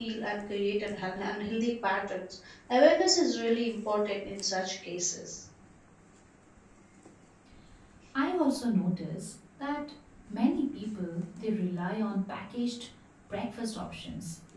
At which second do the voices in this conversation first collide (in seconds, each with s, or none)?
none